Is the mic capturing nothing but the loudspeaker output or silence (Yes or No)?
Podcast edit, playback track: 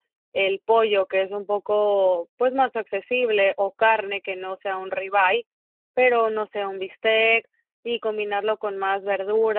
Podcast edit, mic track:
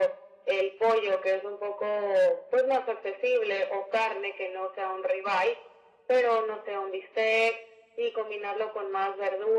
Yes